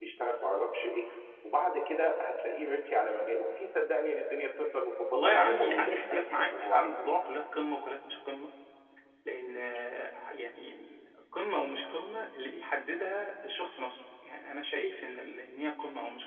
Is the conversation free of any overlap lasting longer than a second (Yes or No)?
No